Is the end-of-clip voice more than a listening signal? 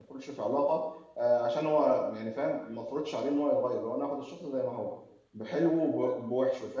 No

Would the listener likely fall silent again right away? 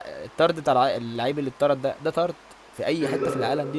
No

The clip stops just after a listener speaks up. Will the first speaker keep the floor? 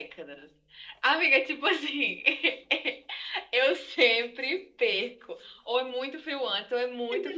No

